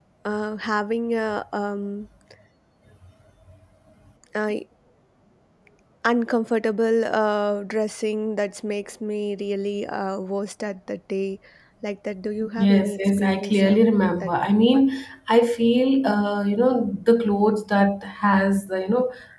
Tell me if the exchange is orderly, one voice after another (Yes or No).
No